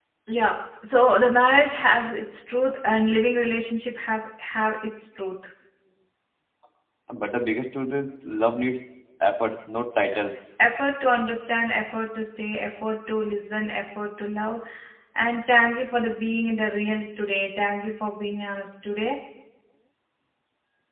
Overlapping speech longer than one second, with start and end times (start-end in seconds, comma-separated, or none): none